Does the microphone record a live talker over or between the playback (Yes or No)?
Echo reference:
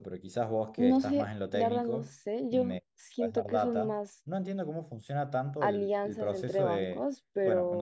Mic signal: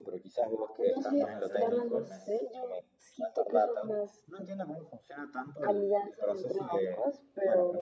Yes